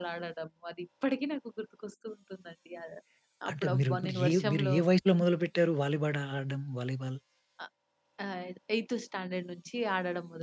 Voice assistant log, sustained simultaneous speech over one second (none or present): present